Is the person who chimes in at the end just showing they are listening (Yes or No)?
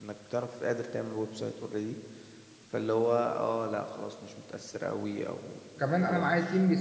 No